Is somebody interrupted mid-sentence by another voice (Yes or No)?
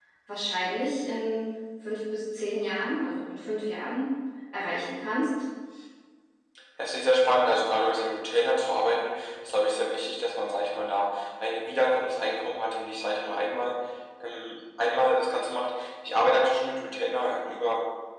No